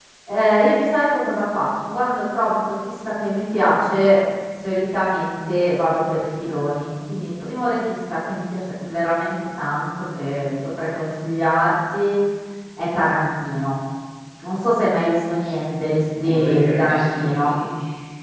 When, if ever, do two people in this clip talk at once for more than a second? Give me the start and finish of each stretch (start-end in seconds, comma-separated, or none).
16.2-17.5